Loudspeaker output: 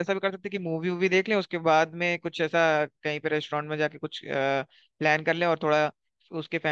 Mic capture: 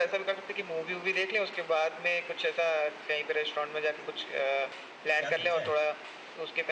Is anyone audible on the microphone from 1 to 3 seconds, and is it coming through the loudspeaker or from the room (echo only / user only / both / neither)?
echo only